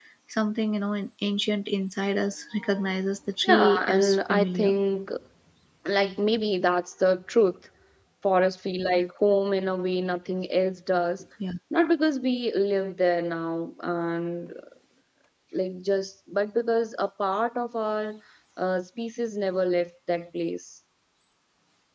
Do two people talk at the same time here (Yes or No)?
Yes